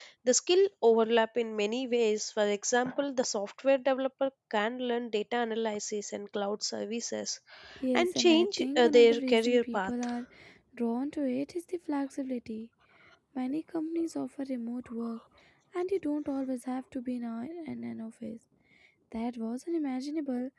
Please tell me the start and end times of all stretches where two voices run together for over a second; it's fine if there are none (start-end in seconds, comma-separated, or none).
7.9-9.9